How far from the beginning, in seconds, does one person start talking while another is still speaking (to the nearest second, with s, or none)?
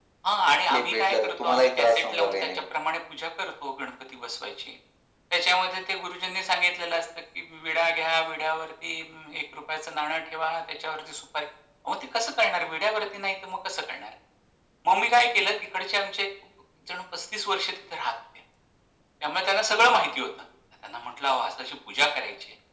1 s